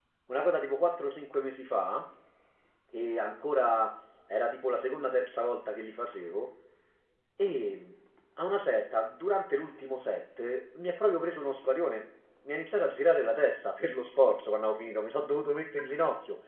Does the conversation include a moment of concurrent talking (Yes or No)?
No